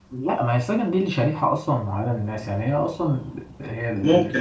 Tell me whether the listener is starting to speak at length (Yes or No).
No